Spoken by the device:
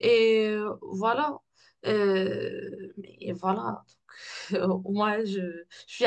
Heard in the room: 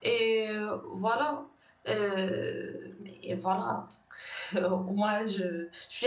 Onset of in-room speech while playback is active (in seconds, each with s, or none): none